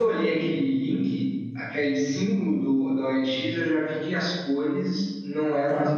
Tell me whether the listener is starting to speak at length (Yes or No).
No